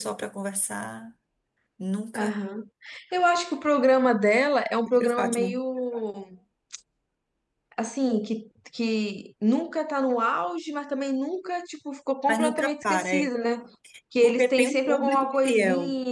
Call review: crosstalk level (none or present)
present